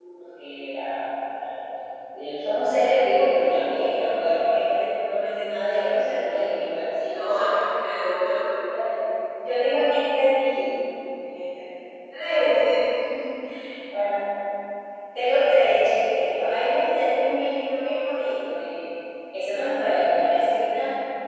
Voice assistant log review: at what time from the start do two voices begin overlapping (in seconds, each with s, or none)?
none